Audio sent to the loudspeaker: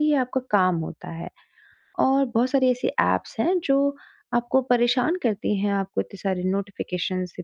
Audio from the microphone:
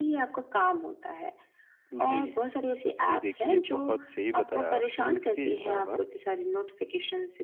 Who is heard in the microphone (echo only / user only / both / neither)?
both